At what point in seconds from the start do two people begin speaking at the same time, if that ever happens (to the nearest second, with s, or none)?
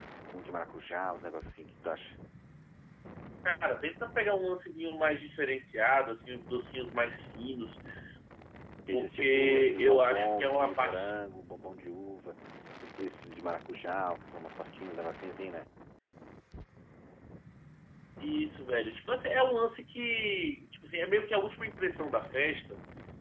9 s